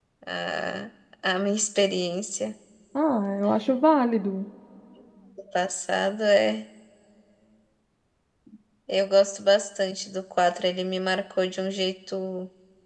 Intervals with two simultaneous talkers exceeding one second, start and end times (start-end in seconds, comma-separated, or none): none